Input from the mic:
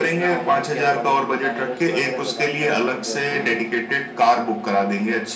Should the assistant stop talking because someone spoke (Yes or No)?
No